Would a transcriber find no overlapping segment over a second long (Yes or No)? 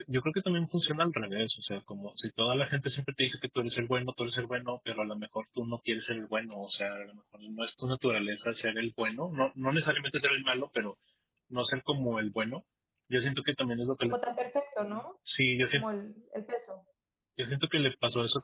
Yes